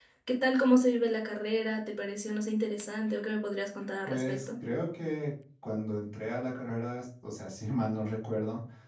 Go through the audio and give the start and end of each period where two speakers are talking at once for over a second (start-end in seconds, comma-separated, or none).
none